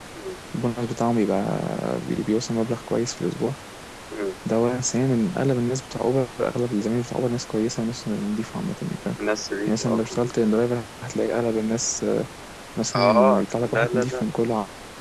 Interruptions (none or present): present